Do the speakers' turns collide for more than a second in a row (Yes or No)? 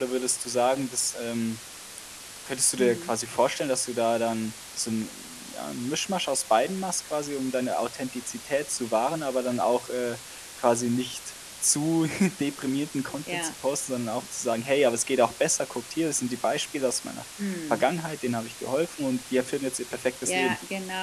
No